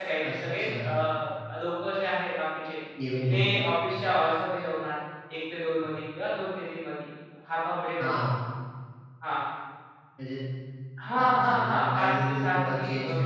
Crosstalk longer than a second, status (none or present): present